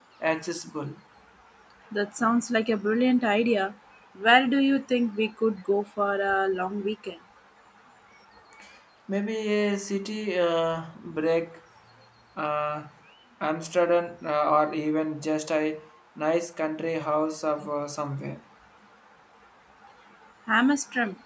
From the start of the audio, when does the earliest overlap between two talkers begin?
none

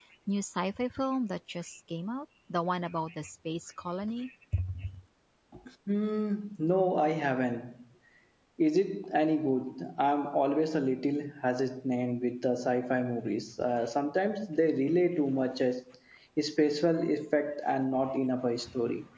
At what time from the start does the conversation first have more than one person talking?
none

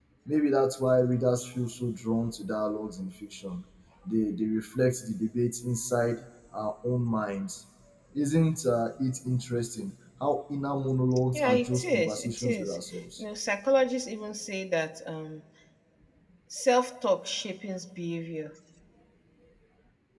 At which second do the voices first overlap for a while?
11.3 s

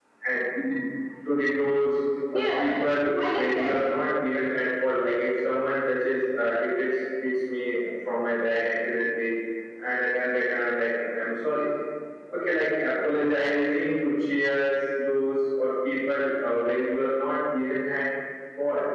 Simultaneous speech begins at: 2.3 s

